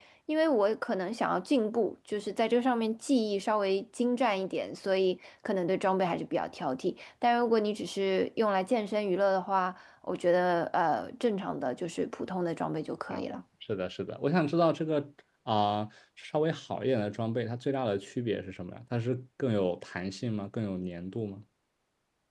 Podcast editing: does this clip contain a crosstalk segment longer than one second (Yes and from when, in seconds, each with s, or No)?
No